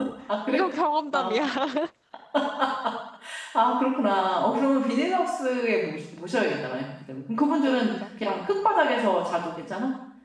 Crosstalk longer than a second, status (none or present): none